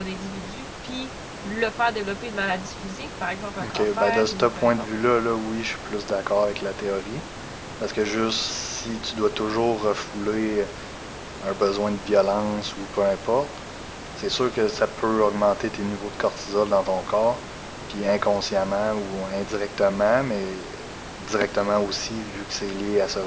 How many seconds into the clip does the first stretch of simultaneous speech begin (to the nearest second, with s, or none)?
4 s